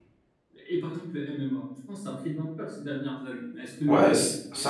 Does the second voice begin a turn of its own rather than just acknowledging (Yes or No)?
Yes